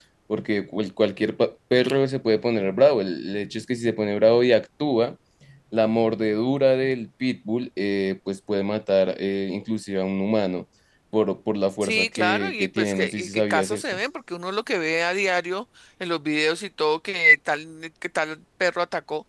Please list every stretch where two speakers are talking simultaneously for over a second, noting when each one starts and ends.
11.8-14.0

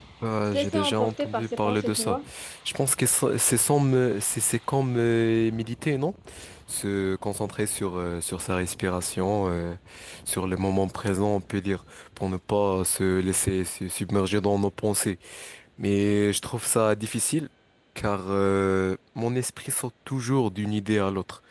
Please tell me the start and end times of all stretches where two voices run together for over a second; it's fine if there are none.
0.5-2.2

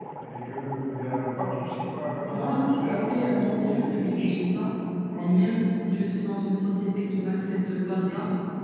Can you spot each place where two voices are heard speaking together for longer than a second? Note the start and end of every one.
2.3-4.3

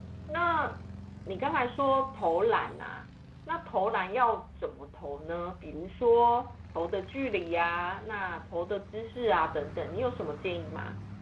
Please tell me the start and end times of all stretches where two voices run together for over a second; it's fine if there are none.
none

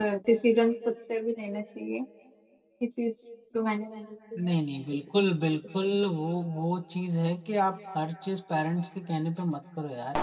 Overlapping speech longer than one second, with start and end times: none

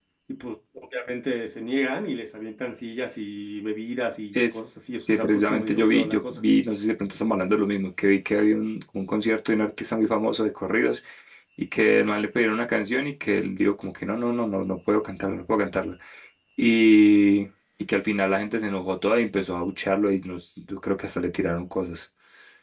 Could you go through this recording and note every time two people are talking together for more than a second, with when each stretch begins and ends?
5.1-6.4

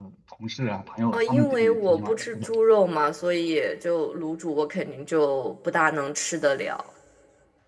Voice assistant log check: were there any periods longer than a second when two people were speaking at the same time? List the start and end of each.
1.1-2.5

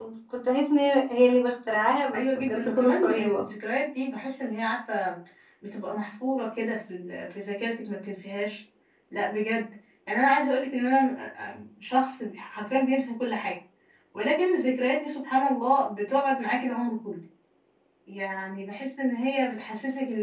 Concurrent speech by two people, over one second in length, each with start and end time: 2.1-3.4

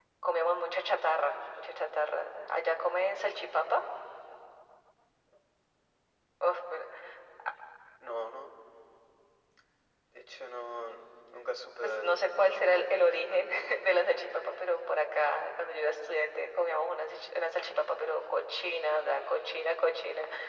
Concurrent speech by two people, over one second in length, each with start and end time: 11.8-13.8

